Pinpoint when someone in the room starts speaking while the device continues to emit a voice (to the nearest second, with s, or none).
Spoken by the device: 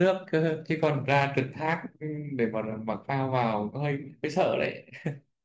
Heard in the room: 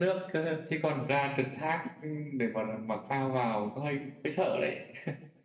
none